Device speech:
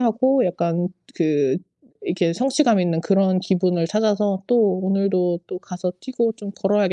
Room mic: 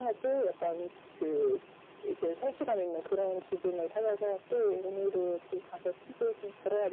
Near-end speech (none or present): none